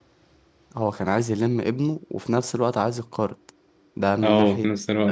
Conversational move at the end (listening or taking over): taking over